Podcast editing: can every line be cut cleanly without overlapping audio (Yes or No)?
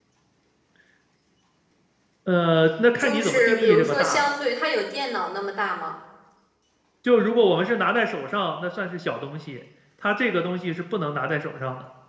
No